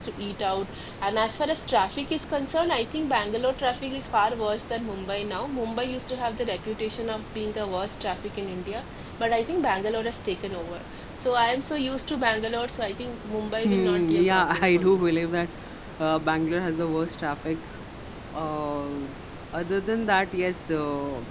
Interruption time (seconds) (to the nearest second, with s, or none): 14 s